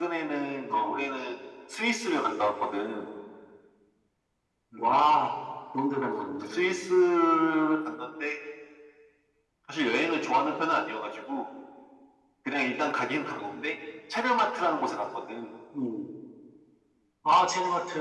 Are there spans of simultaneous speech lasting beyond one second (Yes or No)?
No